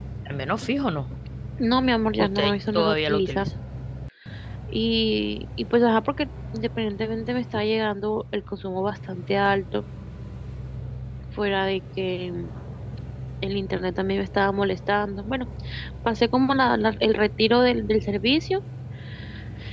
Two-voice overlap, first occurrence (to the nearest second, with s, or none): 2 s